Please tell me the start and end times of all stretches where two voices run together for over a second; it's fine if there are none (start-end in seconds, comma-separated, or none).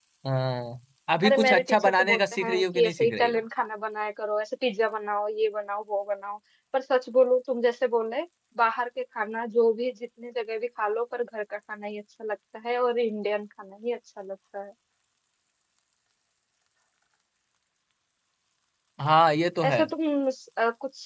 1.2-3.4